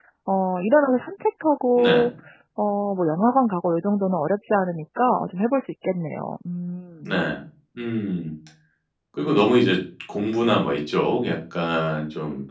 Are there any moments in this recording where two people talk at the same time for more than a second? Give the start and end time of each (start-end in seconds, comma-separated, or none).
none